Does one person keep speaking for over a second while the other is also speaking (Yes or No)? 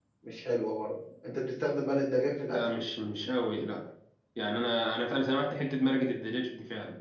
No